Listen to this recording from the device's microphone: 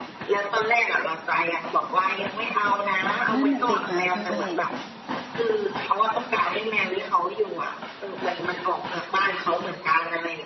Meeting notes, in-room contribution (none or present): present